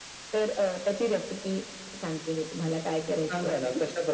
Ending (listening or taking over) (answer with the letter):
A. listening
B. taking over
B